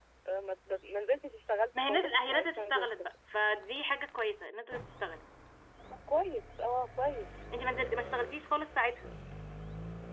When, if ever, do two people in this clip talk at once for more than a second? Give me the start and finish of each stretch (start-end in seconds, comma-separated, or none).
1.8-3.1